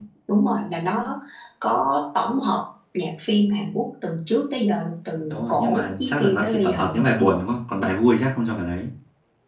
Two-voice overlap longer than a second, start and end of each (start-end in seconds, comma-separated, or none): 5.3-6.8